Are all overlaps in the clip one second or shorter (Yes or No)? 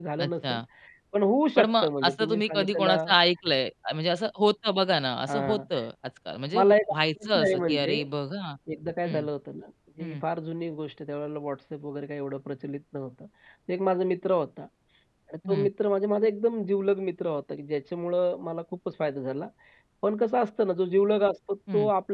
No